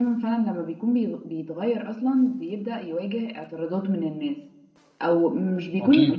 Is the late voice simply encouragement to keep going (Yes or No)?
Yes